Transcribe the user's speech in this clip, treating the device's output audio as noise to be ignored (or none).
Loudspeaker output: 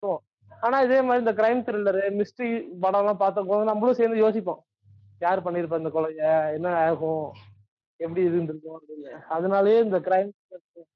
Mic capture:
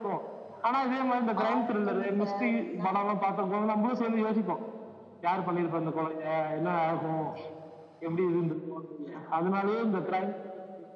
ஆல் டைம் ஃபேவரெட்னா